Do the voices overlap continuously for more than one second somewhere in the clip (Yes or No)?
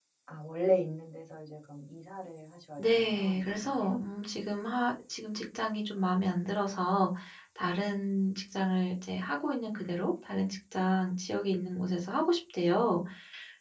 Yes